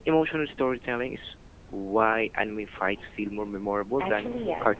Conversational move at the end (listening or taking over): taking over